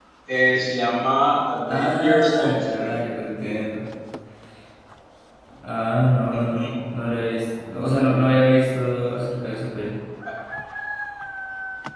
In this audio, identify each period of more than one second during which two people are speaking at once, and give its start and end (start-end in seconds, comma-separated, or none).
1.7-3.0